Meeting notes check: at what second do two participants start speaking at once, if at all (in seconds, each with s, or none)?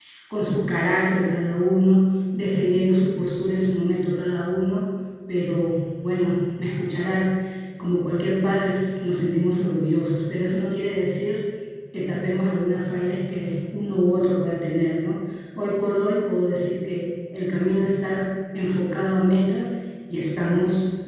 none